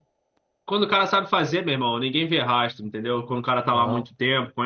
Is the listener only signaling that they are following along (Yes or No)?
Yes